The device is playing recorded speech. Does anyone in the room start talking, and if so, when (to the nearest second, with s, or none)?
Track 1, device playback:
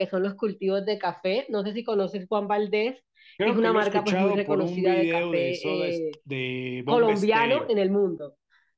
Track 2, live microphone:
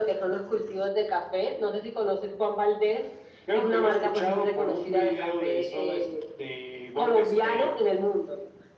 none